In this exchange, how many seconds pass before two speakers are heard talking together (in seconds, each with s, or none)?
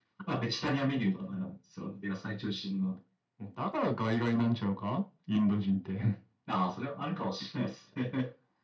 none